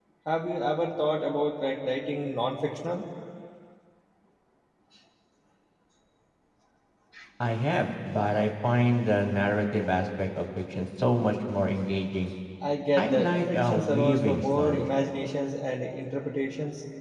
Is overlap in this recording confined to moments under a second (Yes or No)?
No